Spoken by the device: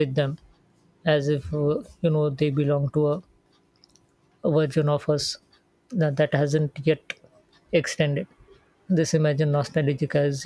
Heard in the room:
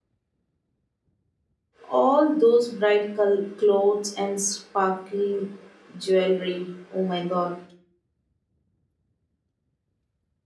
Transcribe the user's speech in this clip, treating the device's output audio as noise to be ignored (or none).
All those bright col- clothes and sparkling jewelry. Oh my god.